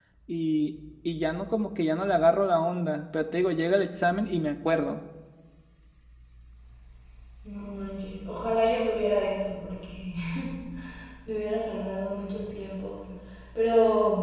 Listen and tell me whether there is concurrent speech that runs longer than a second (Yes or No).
No